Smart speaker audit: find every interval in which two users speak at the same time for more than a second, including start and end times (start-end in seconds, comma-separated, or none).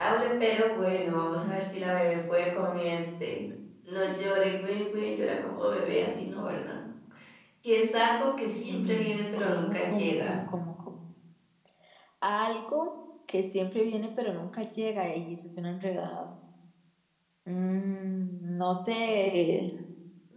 8.7-10.4